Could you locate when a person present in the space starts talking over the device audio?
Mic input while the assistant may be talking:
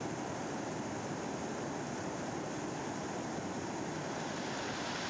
none

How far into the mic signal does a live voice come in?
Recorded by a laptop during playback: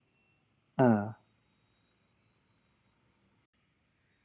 0.8 s

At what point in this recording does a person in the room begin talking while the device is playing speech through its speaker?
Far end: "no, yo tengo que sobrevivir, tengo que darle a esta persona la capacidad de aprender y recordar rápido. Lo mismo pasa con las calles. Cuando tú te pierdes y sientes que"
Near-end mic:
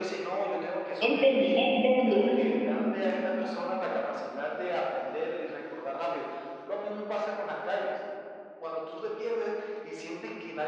1.1 s

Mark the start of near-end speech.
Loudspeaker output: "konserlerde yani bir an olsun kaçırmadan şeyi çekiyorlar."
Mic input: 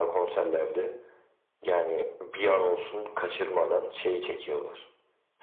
none

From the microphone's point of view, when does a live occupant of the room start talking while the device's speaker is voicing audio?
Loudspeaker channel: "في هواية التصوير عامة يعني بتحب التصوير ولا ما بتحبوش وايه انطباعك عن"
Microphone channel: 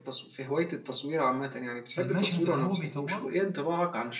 2.0 s

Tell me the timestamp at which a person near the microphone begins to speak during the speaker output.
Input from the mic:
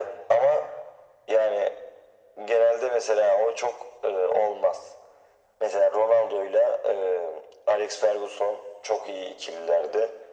none

